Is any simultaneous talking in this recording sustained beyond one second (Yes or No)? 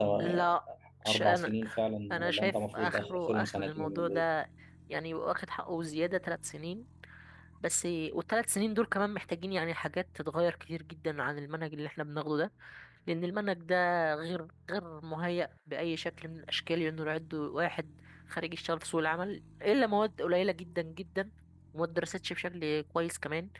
Yes